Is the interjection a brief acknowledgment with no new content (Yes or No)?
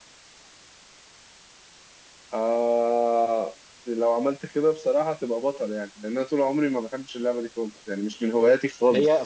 No